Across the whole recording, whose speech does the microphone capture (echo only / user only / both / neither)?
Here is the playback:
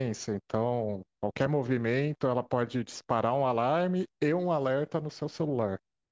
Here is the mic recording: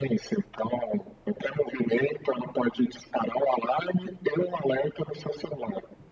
echo only